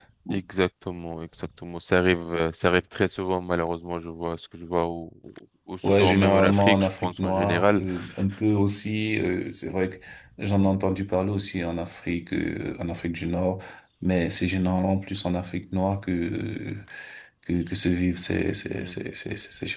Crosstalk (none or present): present